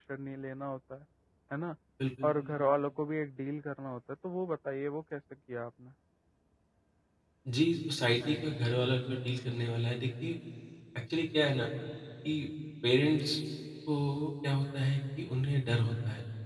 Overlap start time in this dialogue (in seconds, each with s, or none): none